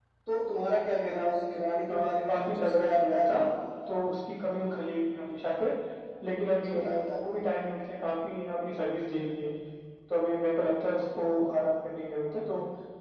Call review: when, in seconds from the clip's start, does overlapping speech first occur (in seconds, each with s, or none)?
1.9 s